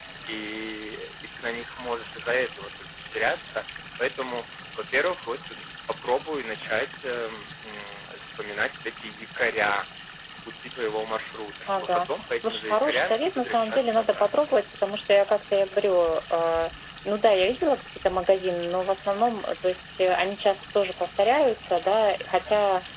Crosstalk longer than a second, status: present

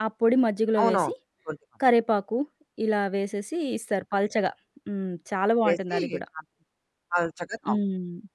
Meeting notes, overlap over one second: none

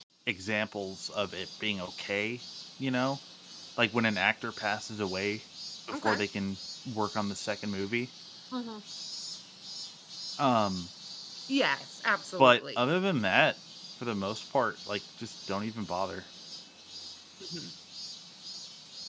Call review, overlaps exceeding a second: none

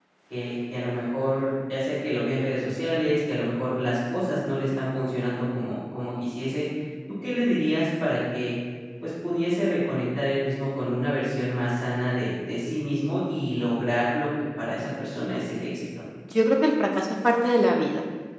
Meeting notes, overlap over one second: none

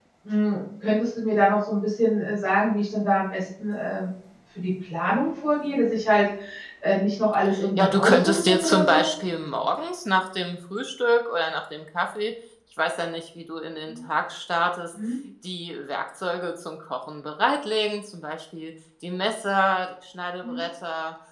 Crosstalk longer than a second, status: present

